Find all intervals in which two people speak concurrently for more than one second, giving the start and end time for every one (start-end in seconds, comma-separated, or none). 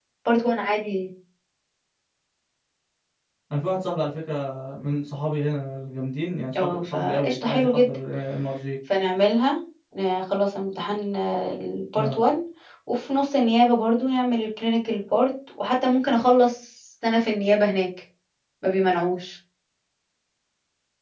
6.6-8.0